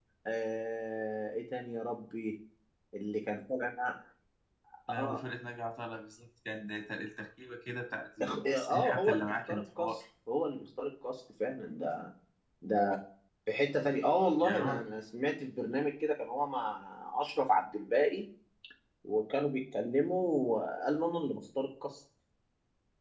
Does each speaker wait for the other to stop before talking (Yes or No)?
No